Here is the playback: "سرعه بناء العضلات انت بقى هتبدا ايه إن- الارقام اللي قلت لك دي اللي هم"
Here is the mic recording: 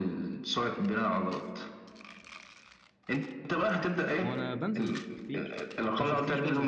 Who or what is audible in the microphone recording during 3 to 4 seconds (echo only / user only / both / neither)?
echo only